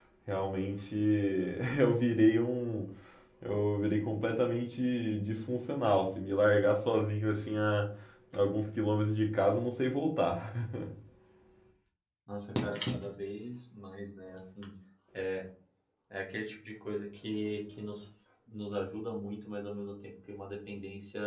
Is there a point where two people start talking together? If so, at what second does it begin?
none

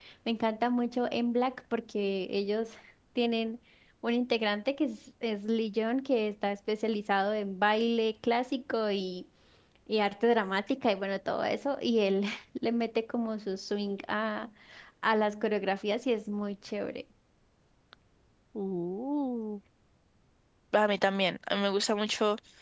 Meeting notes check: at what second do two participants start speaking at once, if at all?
none

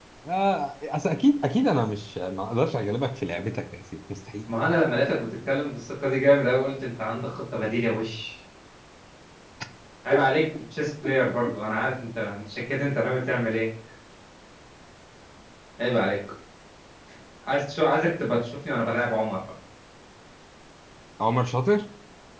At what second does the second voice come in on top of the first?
none

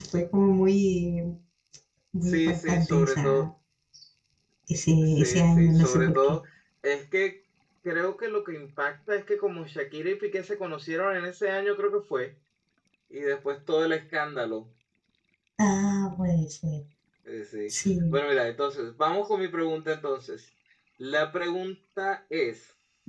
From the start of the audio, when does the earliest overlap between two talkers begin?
2.2 s

